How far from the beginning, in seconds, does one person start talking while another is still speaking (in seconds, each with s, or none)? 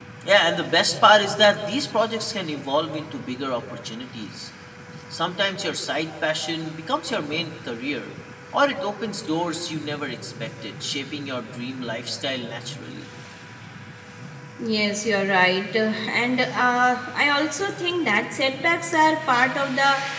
none